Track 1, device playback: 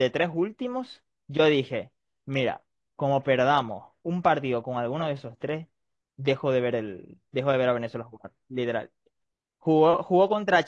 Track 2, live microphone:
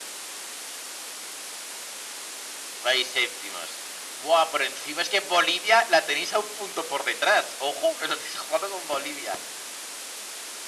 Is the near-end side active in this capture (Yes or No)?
Yes